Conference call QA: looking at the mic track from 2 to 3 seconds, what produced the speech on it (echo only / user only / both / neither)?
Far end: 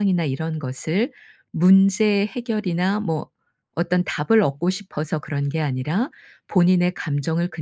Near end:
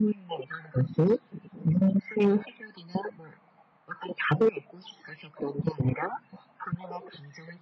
echo only